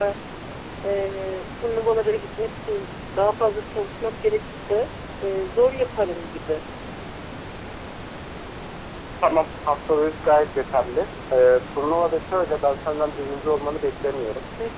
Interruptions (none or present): none